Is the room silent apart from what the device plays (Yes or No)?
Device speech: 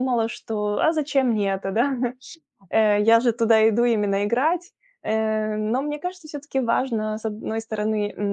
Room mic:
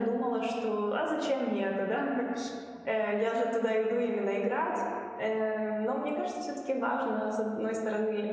Yes